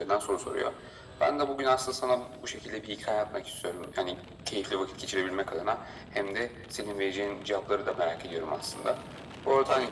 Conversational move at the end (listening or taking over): listening